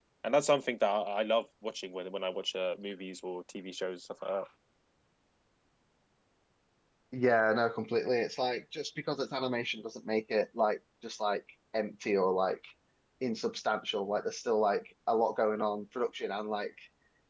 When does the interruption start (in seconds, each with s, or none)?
none